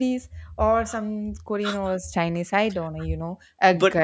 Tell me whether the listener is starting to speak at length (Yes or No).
No